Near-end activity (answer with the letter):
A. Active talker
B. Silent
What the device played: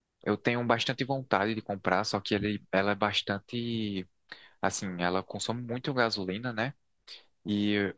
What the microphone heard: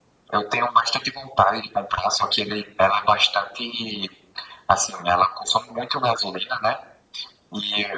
B